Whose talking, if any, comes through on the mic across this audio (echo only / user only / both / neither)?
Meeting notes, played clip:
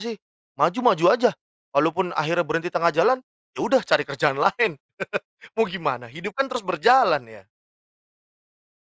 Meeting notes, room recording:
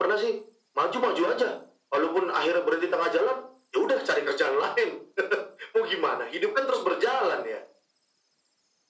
echo only